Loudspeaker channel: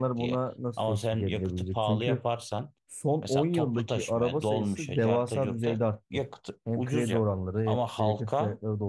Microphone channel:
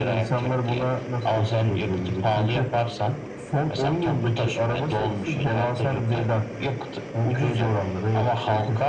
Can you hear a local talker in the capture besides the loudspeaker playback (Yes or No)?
No